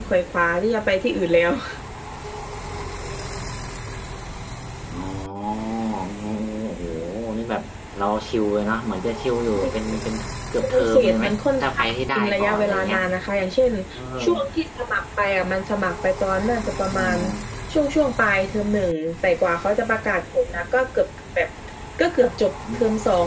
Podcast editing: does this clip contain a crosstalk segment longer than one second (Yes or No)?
Yes